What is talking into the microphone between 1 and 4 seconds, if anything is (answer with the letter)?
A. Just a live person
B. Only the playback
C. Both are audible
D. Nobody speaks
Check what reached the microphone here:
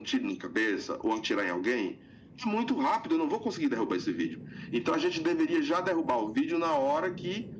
B